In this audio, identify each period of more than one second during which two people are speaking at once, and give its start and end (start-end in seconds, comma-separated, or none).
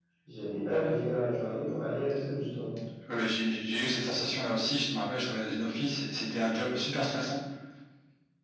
none